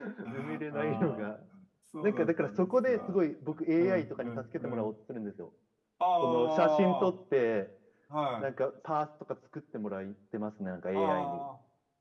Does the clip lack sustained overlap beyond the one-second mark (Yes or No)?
No